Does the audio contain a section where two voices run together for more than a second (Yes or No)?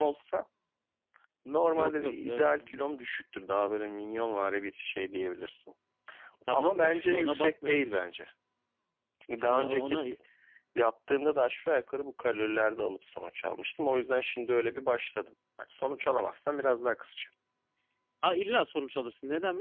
Yes